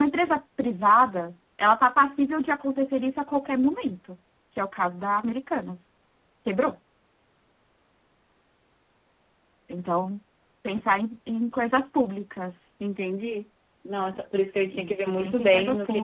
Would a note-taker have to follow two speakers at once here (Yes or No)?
Yes